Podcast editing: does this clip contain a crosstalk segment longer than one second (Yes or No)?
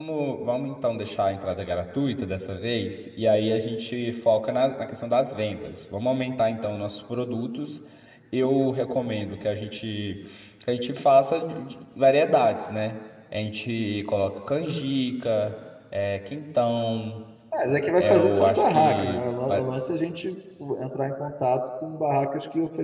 Yes